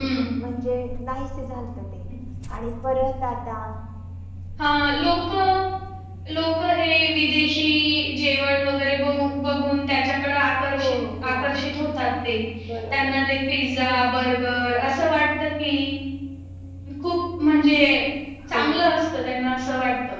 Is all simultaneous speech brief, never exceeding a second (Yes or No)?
Yes